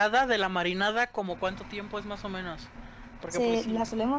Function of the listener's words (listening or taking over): taking over